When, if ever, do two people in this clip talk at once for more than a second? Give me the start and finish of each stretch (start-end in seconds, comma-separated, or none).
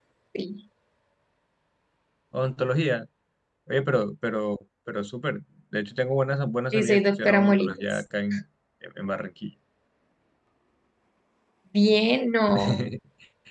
6.7-8.0